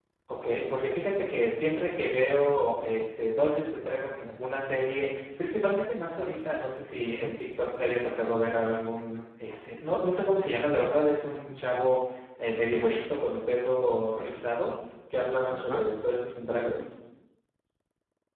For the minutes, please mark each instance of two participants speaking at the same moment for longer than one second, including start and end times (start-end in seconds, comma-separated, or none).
none